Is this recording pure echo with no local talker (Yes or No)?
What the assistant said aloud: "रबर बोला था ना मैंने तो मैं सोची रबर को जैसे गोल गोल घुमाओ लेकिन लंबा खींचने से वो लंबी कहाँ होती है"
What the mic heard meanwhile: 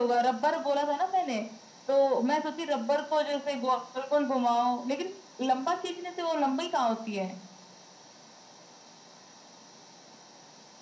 Yes